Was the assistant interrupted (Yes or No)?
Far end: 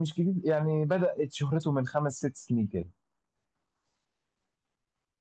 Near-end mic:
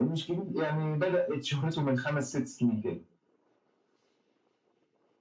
No